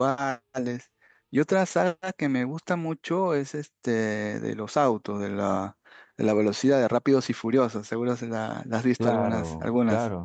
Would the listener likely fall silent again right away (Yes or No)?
No